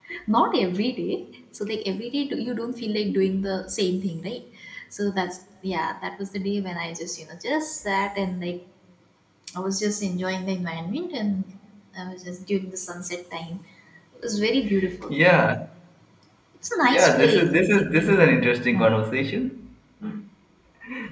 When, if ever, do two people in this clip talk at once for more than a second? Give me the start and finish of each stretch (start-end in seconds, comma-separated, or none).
16.9-18.1